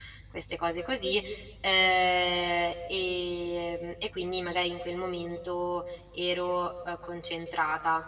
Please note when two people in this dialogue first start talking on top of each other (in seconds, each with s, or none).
none